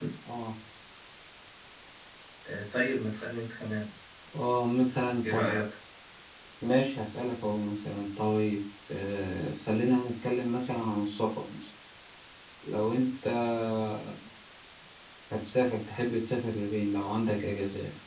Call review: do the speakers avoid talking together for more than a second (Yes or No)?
Yes